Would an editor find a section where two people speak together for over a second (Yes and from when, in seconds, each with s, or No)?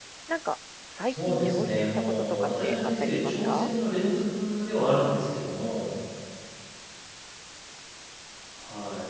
Yes, from 1.0 s